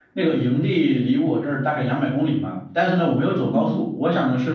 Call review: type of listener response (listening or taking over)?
listening